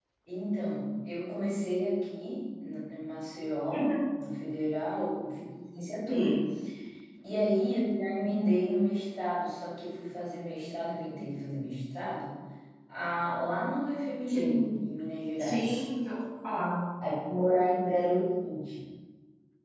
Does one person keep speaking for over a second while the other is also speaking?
No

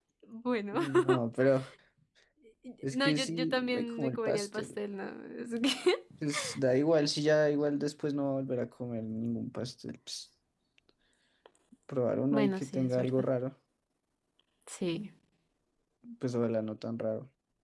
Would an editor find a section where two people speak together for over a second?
Yes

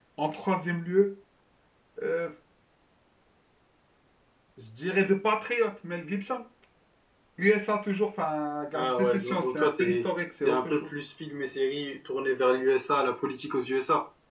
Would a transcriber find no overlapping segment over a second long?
No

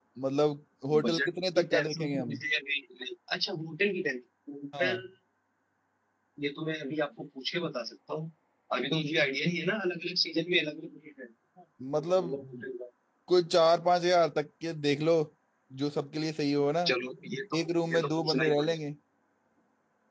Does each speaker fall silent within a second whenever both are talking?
No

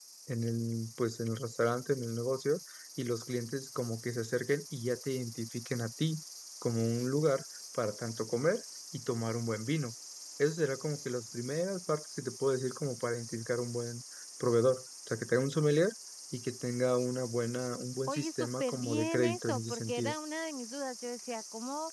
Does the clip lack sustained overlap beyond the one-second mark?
No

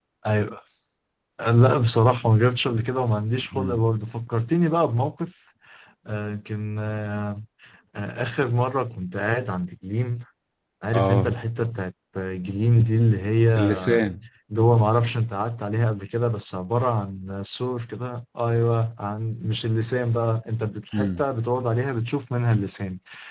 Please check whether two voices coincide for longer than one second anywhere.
No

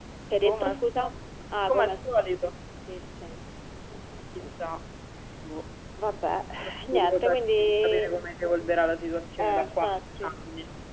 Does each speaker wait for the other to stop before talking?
No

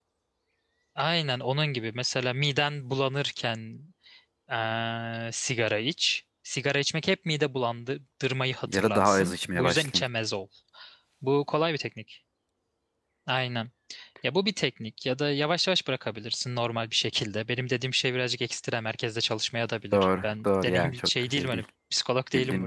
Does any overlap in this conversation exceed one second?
Yes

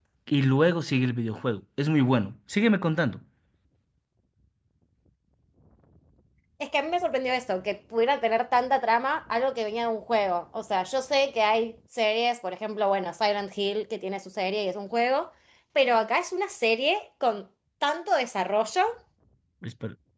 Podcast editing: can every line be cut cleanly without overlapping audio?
Yes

